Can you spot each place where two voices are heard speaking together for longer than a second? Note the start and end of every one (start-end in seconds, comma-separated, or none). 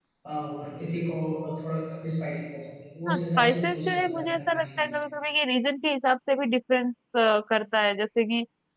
3.1-4.9